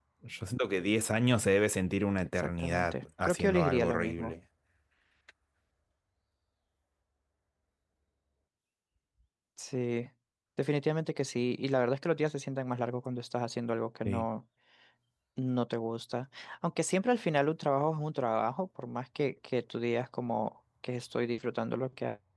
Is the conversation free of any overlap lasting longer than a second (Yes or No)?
No